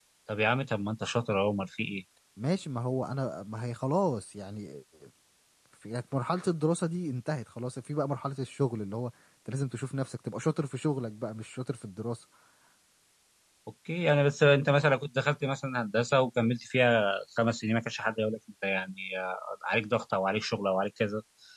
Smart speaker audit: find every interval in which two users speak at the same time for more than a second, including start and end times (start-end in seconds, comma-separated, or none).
none